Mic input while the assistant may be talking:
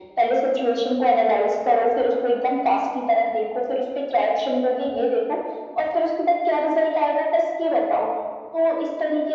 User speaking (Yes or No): No